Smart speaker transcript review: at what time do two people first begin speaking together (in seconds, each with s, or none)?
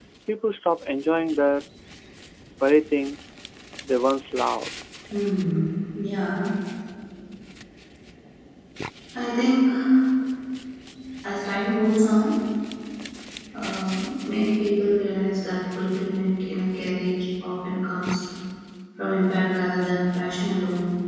none